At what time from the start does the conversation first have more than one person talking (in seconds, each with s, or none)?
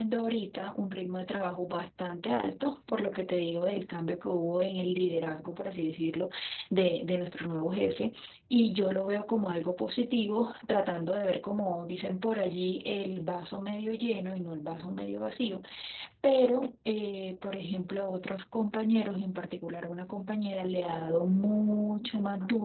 none